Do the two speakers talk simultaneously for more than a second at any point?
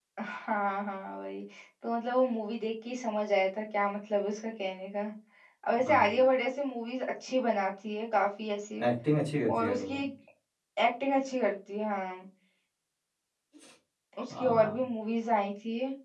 No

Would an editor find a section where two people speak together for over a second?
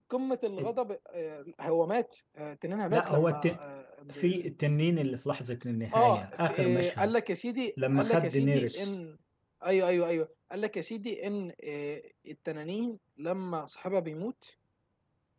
Yes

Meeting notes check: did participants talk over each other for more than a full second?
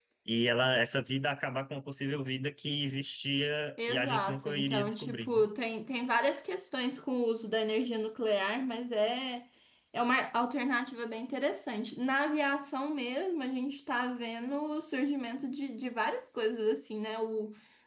Yes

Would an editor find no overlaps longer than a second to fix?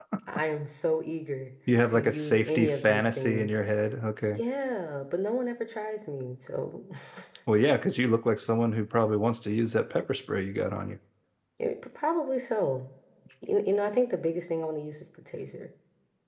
No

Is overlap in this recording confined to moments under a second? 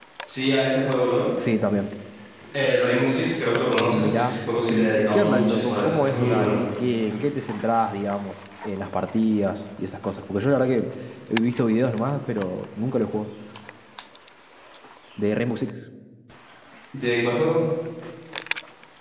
No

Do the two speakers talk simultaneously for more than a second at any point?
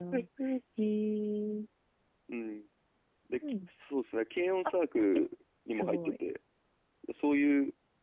No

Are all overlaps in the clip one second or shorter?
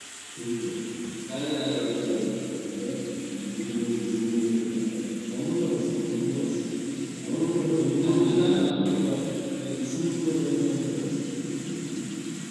Yes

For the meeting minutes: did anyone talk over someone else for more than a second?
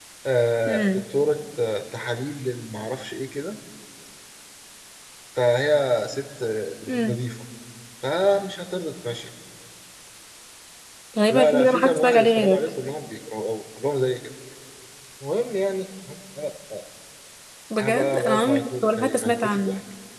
Yes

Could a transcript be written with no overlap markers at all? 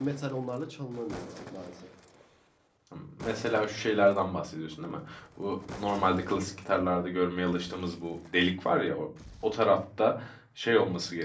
Yes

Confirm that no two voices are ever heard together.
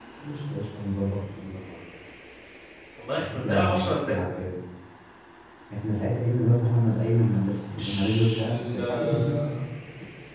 No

